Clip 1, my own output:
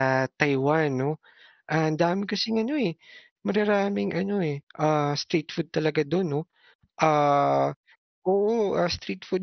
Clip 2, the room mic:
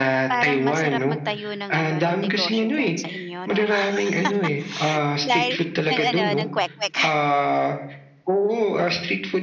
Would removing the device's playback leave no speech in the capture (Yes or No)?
No